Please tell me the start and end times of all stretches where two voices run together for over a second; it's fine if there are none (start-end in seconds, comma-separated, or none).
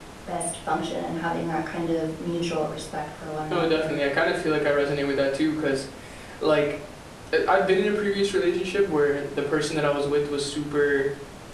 none